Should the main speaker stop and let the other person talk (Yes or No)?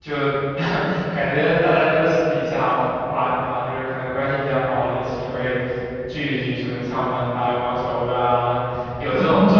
No